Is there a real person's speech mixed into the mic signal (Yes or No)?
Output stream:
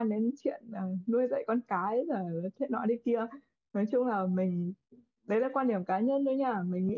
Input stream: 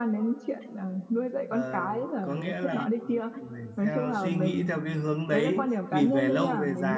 Yes